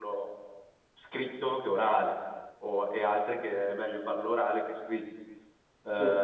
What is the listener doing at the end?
listening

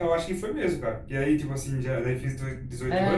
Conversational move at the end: taking over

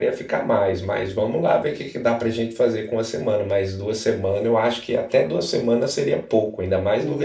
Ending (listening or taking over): taking over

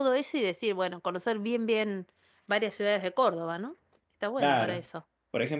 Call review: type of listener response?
taking over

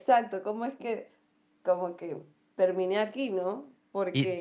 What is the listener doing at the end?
taking over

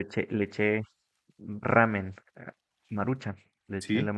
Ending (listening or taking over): listening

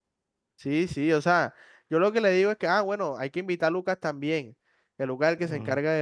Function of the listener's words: listening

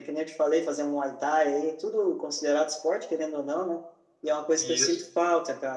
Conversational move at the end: listening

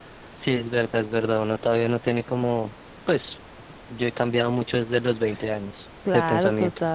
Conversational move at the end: taking over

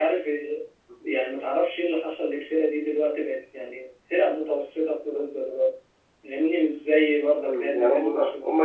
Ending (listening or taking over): taking over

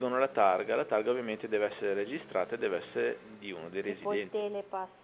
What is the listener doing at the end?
taking over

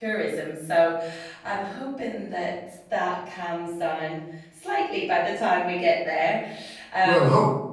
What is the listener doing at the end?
taking over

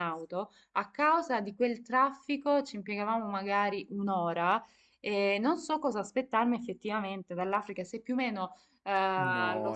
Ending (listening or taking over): taking over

